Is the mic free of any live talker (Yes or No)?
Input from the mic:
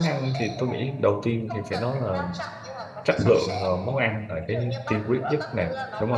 No